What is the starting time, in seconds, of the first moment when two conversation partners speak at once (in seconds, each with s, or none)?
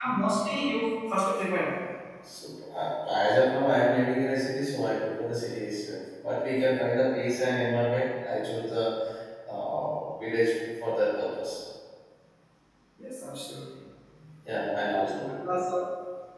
none